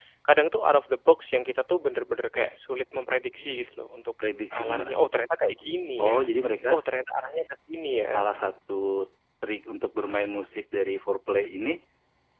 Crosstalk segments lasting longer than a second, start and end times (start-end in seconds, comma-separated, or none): none